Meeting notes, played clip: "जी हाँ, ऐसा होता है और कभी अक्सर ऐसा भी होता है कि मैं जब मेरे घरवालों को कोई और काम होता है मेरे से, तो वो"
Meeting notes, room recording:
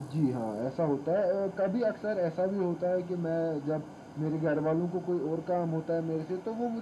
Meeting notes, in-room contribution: none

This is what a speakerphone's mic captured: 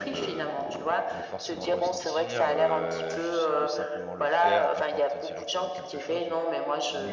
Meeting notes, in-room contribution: present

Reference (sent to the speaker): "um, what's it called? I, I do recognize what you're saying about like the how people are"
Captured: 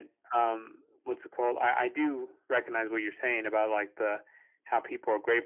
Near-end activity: none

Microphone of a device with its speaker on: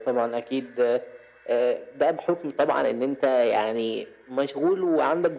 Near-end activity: none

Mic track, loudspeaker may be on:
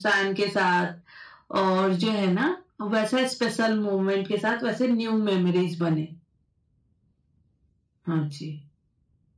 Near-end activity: none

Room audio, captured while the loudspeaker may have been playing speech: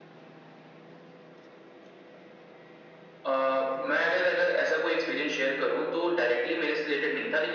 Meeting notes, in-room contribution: none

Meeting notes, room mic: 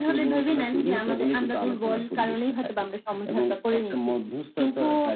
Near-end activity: none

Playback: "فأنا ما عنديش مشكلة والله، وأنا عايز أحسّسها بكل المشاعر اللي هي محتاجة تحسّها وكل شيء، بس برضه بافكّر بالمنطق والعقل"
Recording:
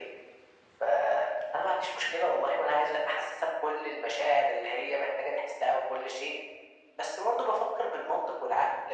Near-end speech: none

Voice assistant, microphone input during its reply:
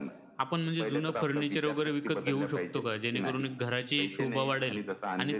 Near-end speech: present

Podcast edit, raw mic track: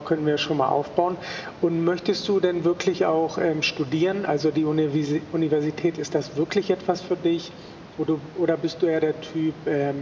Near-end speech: none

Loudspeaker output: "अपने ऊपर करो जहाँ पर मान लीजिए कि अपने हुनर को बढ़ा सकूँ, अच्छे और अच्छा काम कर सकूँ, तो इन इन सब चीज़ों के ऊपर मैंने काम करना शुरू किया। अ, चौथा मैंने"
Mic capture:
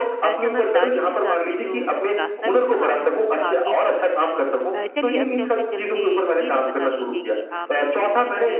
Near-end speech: present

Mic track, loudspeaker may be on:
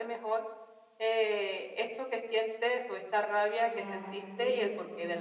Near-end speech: present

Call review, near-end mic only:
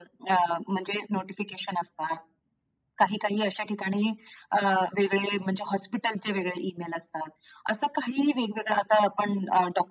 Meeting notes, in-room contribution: none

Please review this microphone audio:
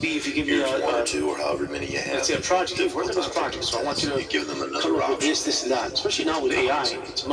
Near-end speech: none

